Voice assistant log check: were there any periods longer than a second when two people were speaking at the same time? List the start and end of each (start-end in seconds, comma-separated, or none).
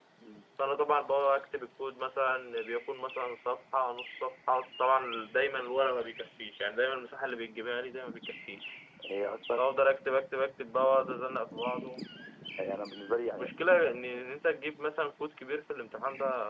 none